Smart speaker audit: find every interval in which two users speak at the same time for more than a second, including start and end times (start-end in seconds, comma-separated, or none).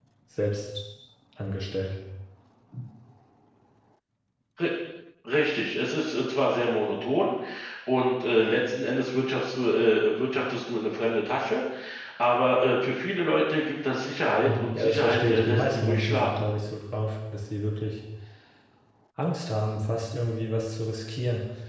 14.4-16.3